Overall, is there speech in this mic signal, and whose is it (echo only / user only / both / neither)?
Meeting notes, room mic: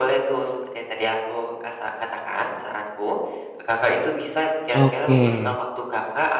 both